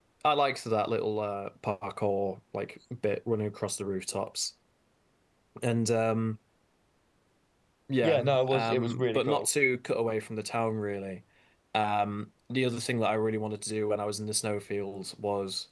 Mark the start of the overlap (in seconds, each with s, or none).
8.0 s